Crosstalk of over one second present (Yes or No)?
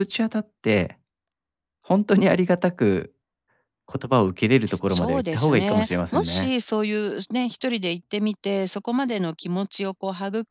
Yes